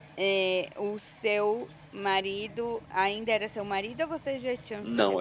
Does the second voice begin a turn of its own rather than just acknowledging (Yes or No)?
Yes